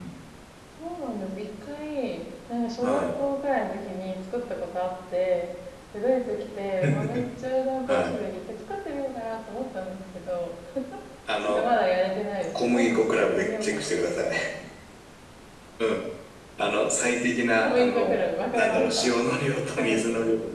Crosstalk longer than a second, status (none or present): present